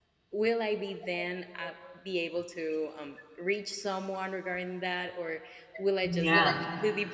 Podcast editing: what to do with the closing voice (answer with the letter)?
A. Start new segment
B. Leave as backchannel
B